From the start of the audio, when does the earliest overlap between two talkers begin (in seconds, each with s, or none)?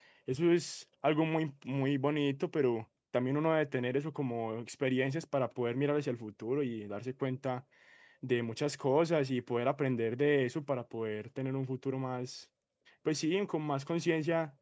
none